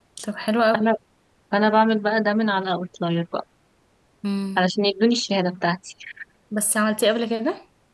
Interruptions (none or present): none